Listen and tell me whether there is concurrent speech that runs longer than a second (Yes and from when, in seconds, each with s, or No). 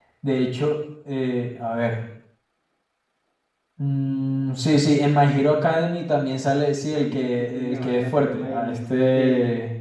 Yes, from 6.9 s